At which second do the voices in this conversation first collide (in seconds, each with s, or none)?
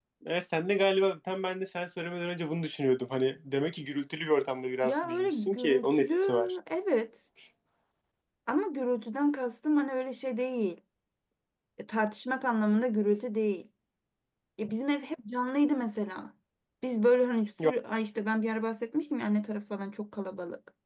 4.8 s